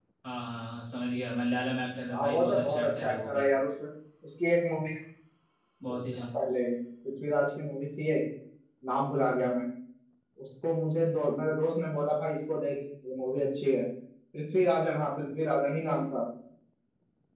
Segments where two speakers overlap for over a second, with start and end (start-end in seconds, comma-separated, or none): 2.1-3.5